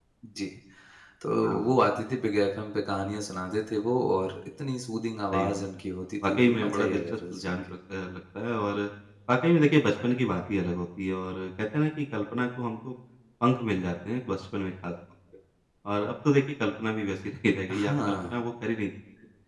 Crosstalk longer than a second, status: present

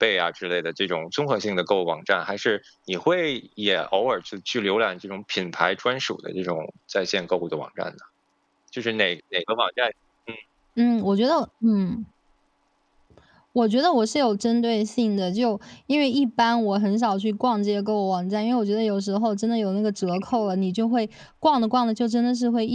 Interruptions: none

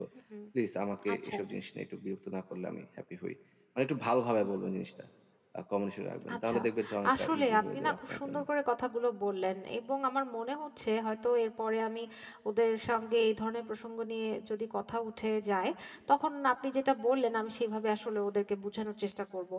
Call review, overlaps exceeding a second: present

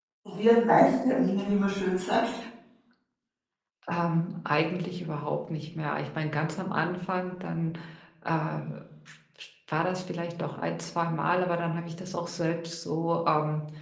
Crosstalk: none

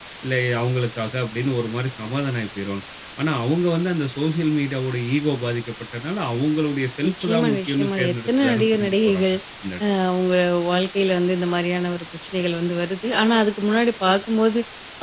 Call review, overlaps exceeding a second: present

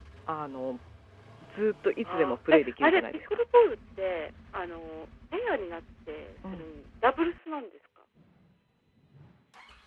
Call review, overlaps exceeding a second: present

